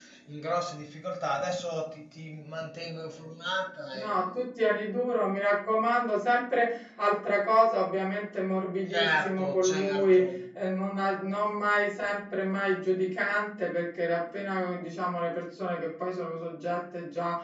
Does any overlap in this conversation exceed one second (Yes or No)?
Yes